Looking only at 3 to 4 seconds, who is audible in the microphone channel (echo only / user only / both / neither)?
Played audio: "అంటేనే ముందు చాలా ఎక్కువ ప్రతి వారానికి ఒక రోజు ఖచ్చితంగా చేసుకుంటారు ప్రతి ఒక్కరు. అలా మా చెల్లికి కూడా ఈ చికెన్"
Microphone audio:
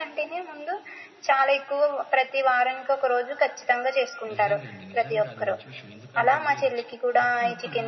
echo only